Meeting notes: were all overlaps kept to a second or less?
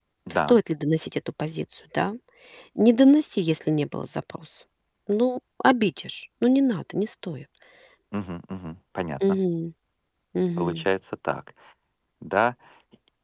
Yes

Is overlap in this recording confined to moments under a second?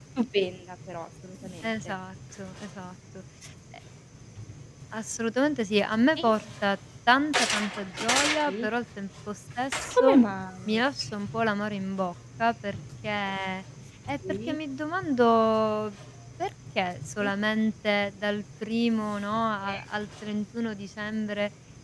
Yes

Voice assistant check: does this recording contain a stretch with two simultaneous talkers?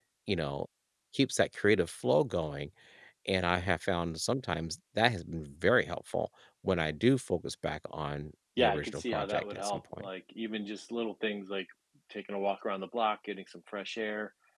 Yes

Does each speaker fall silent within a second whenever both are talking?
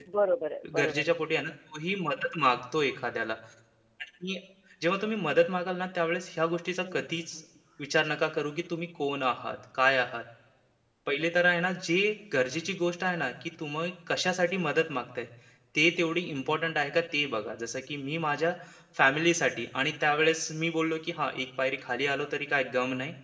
Yes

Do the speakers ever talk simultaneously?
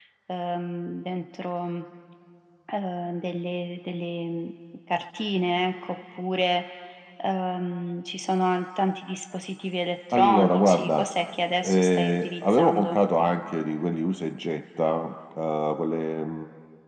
Yes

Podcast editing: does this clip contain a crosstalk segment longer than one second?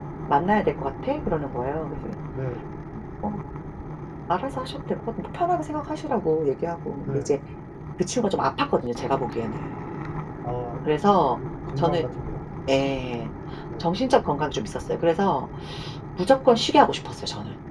No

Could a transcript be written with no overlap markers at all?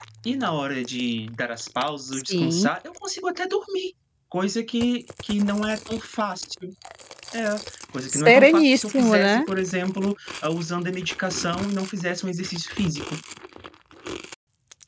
No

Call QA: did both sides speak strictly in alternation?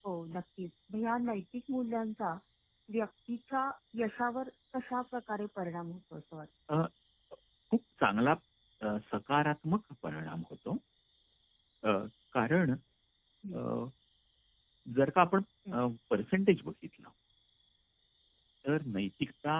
Yes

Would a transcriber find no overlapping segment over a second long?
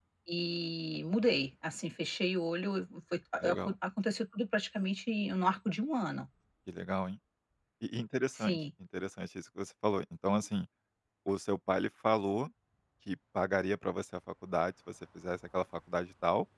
Yes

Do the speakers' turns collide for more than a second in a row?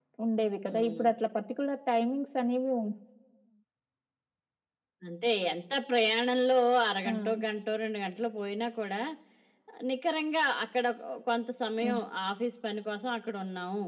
No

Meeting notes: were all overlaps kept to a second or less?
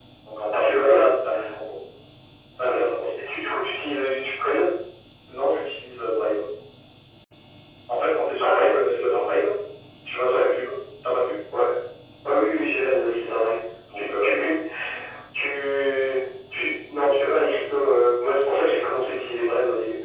Yes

